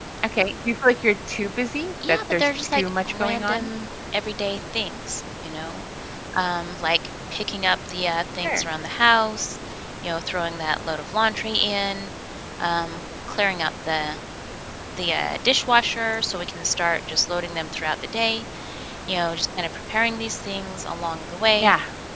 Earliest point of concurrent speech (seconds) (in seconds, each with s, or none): 2.0 s